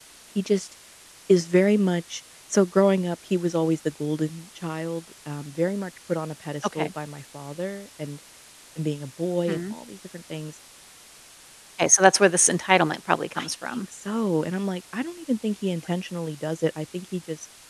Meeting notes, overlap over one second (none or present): none